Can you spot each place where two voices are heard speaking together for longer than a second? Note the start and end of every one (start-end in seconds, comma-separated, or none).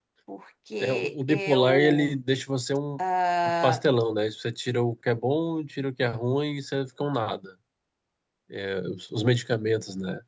0.8-2.2